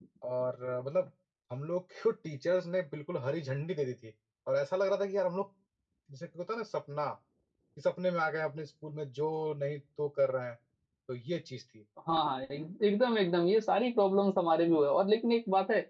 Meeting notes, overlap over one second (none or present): none